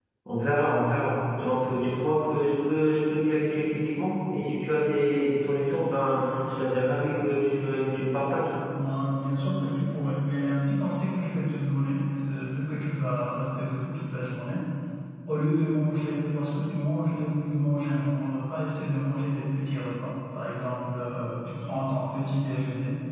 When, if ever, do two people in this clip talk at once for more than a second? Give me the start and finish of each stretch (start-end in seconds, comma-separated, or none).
none